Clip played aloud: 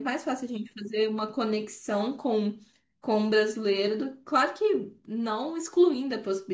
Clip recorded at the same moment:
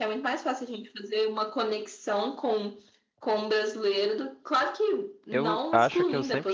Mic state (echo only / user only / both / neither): both